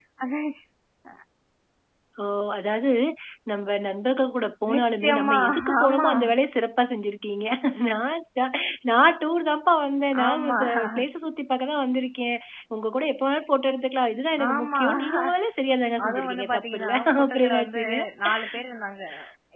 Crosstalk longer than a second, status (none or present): present